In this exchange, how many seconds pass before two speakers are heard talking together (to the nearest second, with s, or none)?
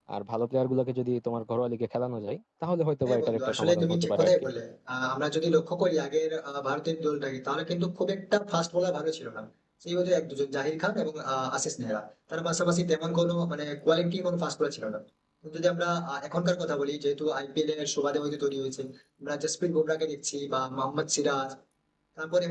3 s